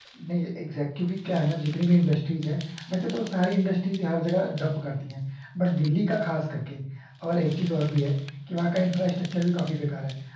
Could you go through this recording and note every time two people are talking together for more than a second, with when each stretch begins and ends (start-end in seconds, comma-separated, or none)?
none